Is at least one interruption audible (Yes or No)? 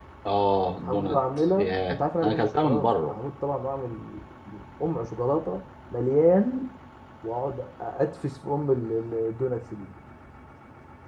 Yes